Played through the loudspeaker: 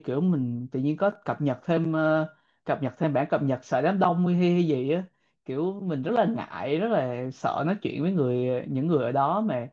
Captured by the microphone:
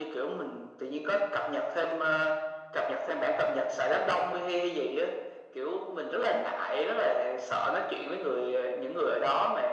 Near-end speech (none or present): none